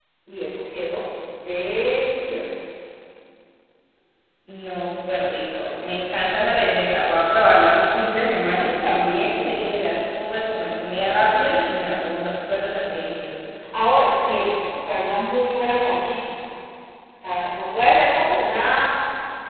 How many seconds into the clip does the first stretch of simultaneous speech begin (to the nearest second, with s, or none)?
none